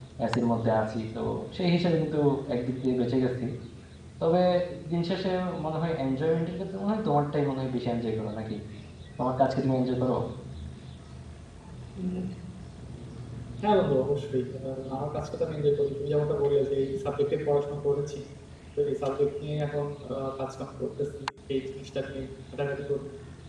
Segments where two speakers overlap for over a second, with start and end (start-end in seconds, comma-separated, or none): none